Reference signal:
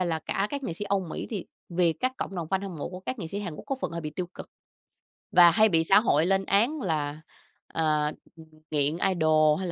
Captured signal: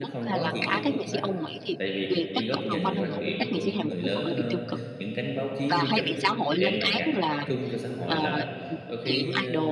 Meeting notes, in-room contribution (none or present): present